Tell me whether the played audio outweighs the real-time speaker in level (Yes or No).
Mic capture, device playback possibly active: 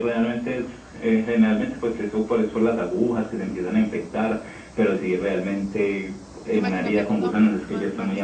Yes